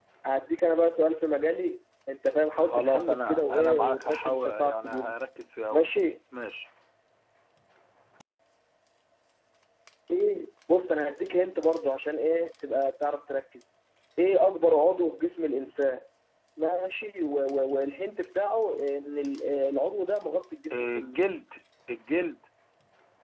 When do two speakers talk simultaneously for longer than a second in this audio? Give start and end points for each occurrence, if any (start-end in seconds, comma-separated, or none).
2.6-5.1